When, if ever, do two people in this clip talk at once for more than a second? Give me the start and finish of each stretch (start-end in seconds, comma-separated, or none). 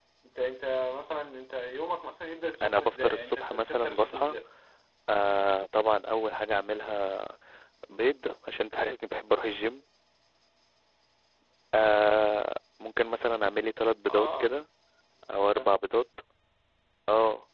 2.6-4.3